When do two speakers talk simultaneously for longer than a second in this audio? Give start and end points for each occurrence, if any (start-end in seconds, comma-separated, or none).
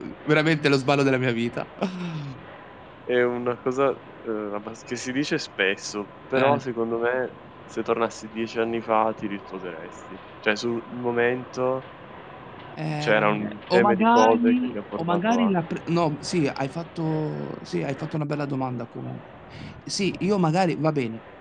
12.9-15.5